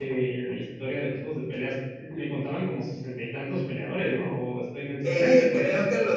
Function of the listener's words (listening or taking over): taking over